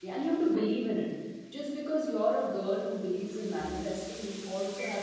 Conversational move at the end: listening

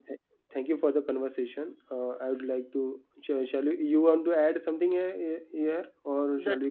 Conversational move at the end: taking over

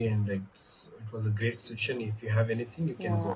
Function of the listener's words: taking over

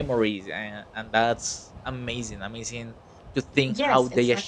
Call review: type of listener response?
taking over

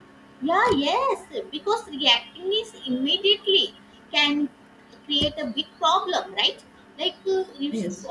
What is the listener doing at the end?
listening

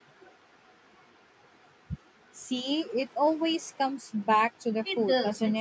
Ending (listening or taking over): taking over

